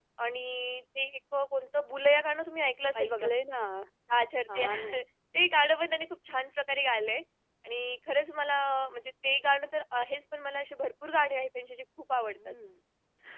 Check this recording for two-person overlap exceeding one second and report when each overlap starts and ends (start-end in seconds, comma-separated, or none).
none